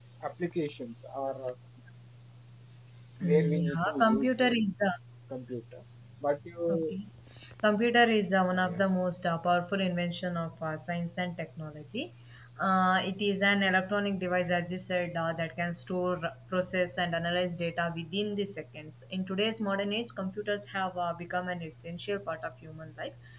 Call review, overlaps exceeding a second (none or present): present